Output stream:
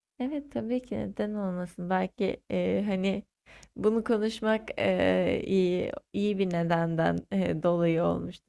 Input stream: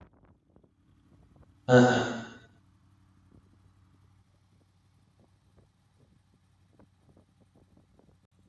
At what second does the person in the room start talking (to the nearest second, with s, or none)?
2 s